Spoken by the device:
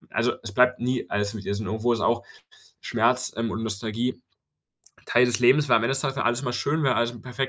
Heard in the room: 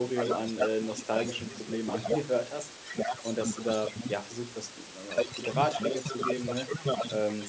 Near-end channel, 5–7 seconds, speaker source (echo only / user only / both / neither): both